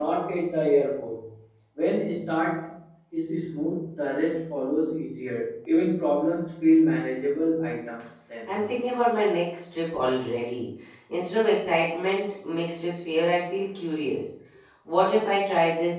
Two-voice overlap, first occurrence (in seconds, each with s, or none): none